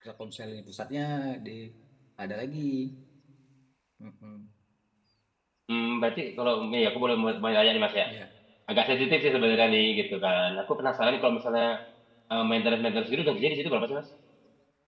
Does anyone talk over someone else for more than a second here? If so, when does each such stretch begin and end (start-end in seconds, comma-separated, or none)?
none